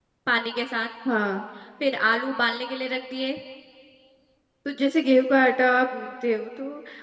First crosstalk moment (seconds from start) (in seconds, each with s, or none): none